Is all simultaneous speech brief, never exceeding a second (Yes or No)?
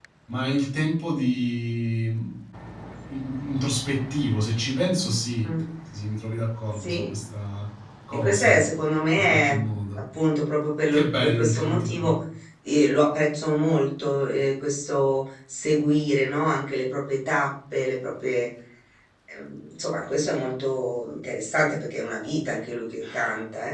No